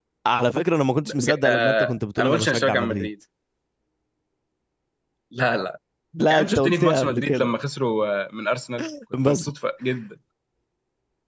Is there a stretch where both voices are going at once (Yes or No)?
Yes